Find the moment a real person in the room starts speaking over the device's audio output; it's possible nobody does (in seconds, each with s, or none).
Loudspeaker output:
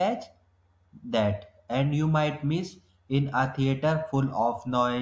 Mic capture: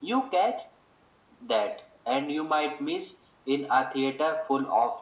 none